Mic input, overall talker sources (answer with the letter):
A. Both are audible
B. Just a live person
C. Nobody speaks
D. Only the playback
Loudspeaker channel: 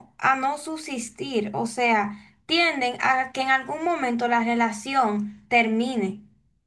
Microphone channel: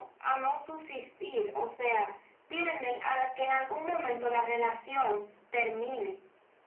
D